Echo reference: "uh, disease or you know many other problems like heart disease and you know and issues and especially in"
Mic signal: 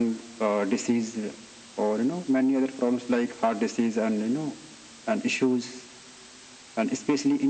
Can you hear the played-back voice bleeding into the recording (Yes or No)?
Yes